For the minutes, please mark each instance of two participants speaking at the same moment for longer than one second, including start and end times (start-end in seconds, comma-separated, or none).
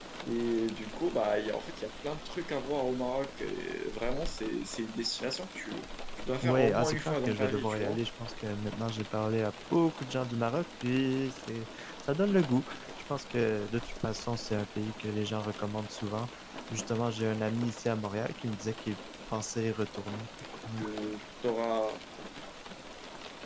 6.4-8.0